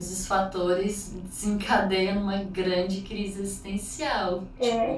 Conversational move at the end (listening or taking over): taking over